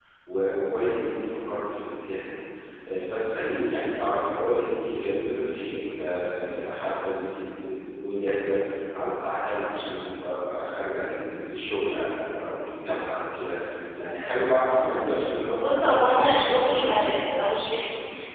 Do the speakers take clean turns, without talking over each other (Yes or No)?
No